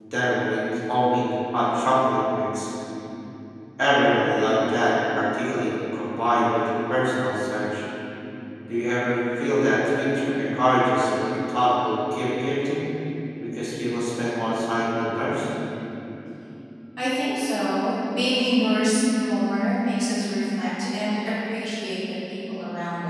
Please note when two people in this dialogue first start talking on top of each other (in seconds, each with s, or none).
none